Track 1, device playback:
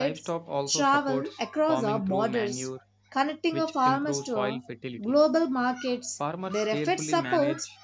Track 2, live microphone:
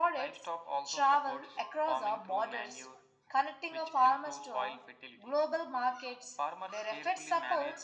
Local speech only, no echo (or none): none